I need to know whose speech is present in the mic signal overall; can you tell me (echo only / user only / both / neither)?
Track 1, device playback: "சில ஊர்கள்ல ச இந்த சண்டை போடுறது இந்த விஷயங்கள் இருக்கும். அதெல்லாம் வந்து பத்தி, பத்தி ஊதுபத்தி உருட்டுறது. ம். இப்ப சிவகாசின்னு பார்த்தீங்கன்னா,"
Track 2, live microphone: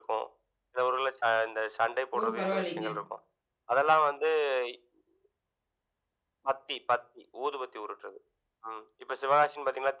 both